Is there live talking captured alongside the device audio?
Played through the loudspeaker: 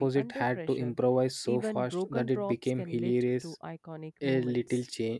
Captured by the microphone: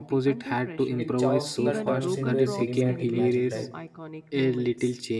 Yes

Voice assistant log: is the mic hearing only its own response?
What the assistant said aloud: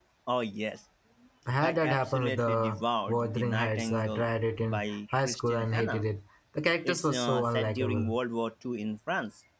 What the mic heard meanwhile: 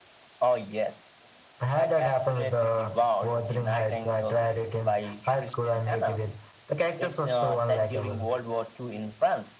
Yes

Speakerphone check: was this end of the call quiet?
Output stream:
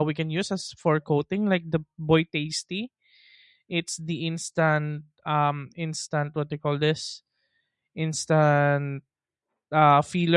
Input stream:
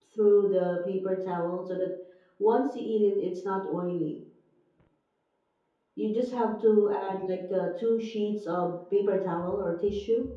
No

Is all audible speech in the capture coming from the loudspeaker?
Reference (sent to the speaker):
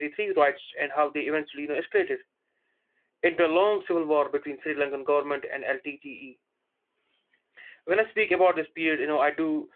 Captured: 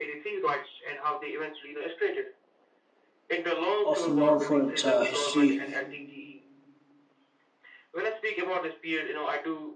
No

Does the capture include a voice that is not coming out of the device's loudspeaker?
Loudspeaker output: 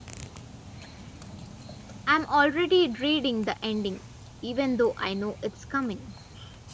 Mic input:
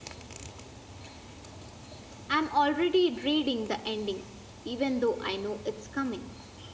No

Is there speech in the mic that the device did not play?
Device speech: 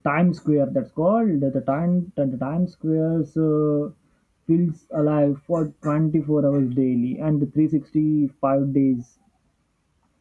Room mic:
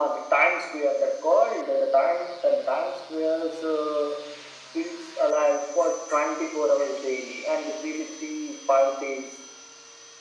No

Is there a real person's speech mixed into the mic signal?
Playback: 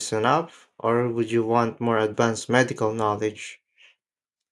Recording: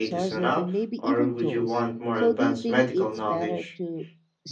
Yes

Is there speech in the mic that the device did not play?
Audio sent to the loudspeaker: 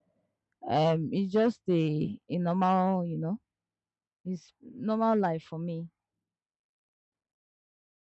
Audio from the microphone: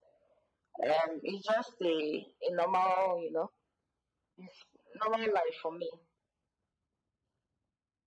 No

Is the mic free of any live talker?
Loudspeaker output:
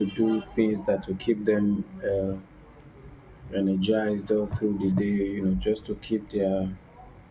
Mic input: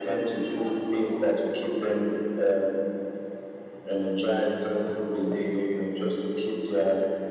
Yes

